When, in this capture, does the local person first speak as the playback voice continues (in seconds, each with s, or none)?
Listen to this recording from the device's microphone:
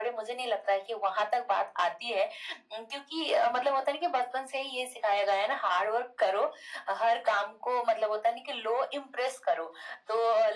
none